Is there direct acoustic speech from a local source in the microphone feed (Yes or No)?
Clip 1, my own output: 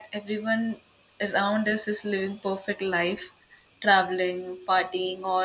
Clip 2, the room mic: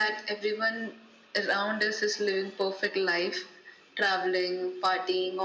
No